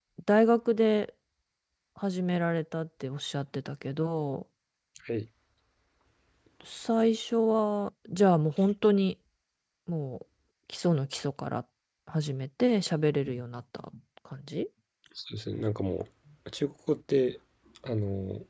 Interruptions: none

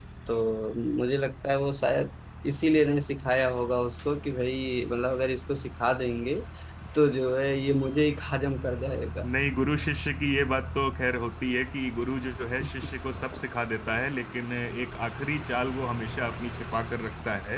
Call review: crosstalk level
none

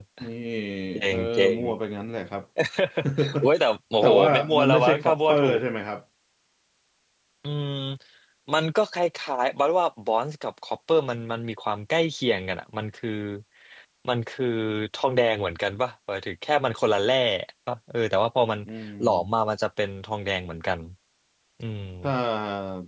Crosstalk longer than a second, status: present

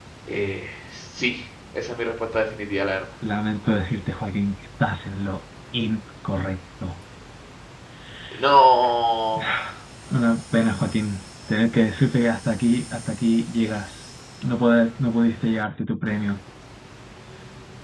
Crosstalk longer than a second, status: none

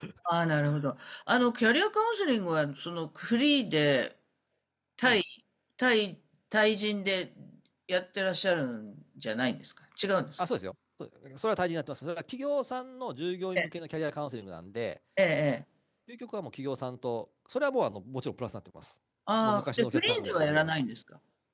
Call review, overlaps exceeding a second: present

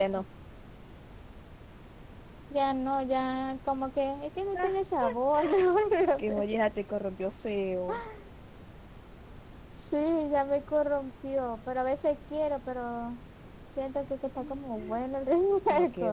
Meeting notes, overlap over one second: none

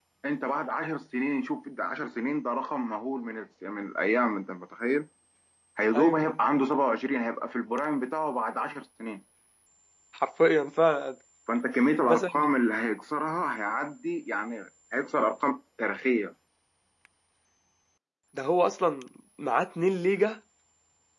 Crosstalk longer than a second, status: none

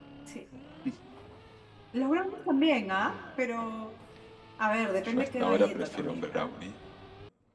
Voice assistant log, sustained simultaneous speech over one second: present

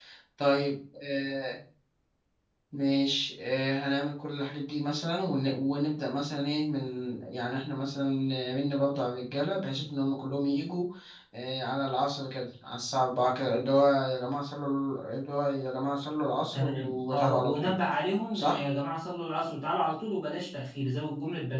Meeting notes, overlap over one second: present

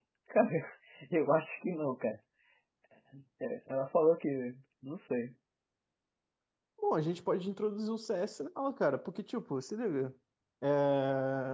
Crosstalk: none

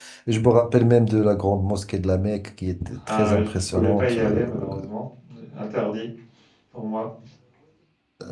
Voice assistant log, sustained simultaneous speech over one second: present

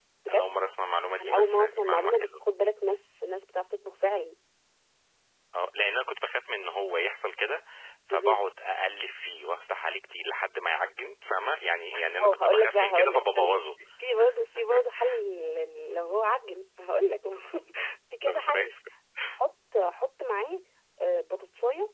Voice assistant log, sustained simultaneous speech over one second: present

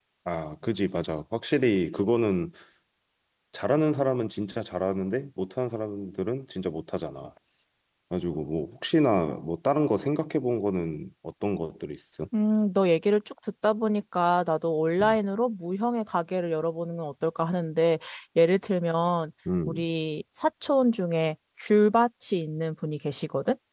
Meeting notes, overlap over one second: none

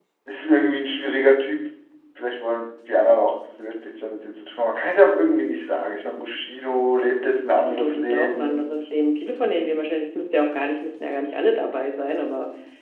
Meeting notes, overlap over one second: present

